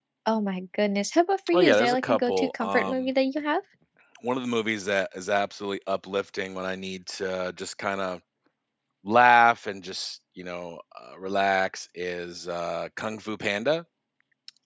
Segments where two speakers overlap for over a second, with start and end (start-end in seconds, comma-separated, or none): 1.5-3.1